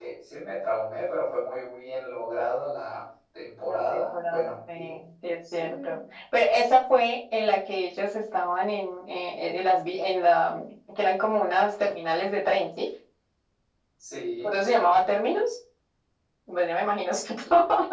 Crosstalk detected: Yes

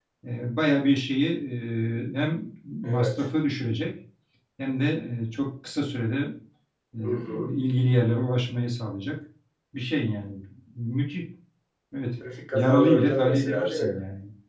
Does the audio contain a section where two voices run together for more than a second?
Yes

